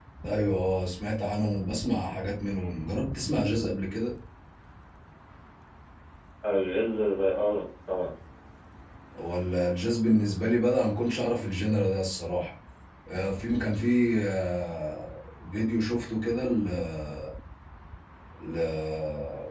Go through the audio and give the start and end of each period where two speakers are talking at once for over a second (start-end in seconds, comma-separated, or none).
none